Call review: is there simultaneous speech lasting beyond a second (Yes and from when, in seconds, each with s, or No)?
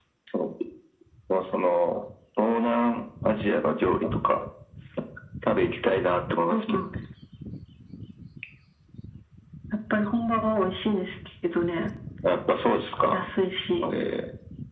No